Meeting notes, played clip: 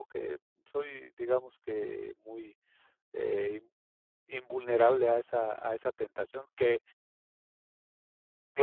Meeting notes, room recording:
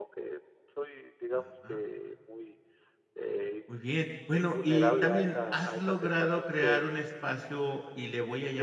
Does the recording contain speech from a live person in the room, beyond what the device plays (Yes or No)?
Yes